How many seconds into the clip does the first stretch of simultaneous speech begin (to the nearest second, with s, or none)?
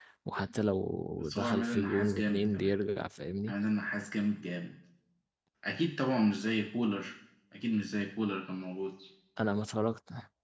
1 s